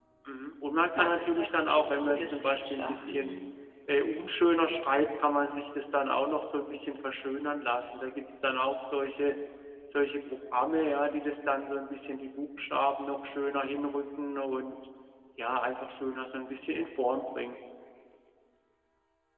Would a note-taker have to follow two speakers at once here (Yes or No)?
Yes